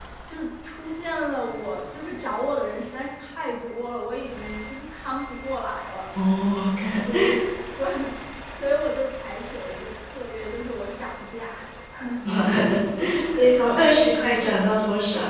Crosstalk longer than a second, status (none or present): present